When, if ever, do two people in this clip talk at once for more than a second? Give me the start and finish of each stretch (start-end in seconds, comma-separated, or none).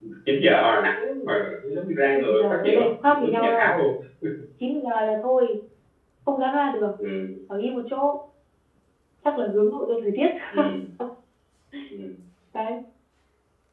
2.1-3.7